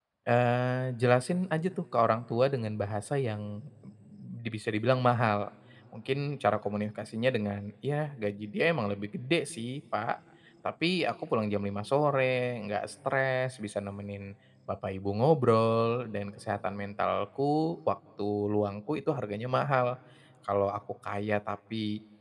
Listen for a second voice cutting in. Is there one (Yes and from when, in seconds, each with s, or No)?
No